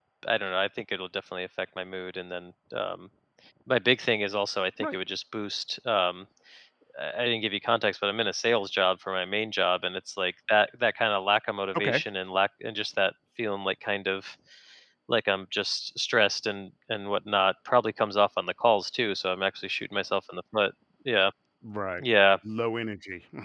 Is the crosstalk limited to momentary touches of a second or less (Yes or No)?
Yes